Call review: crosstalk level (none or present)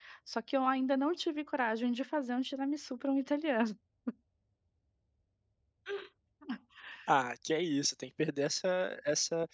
none